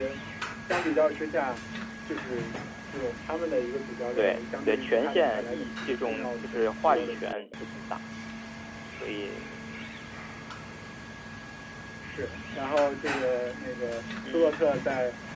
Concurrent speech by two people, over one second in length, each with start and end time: 4.2-7.5

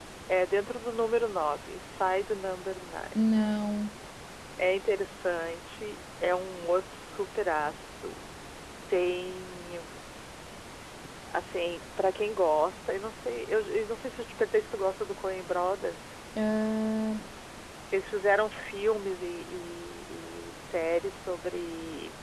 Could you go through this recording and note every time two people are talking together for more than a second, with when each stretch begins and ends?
none

